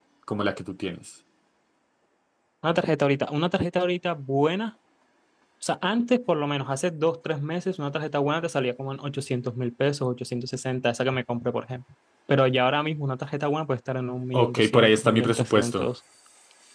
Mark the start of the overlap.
14.3 s

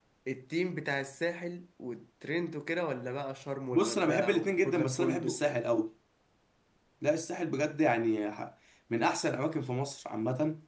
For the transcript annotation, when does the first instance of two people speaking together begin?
3.7 s

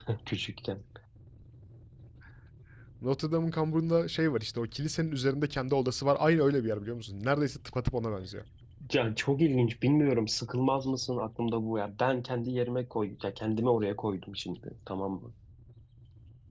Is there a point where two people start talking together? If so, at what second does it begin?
none

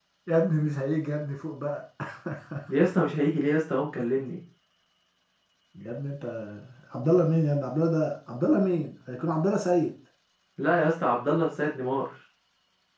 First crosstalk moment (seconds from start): none

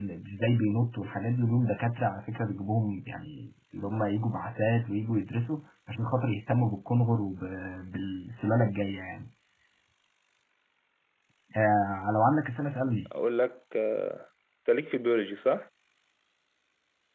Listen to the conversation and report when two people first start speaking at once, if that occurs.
none

